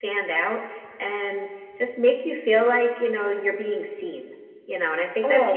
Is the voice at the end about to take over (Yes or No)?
Yes